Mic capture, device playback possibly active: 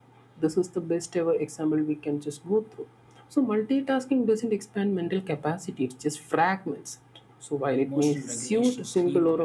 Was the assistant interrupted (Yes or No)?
Yes